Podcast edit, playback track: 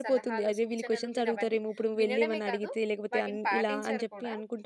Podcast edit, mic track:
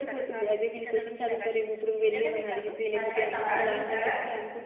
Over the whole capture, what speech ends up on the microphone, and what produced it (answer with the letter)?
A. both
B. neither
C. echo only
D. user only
A